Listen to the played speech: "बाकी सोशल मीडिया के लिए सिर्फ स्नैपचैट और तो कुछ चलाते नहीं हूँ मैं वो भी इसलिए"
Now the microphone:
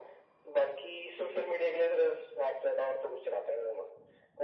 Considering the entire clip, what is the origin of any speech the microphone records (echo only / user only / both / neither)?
echo only